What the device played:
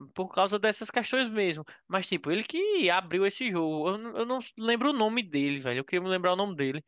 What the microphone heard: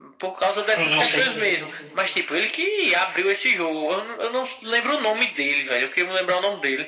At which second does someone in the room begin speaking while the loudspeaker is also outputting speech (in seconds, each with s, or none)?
0.8 s